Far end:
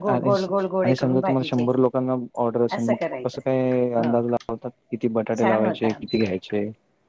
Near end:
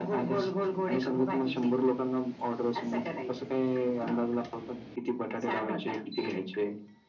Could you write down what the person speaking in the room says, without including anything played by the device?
none

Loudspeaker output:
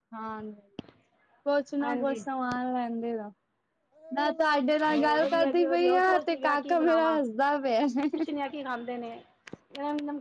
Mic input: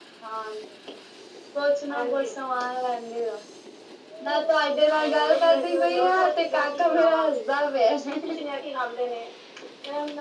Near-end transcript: none

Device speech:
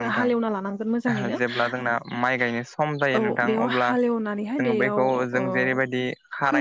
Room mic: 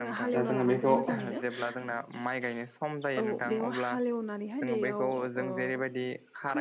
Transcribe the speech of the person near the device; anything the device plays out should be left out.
दा जोङो बेखौ

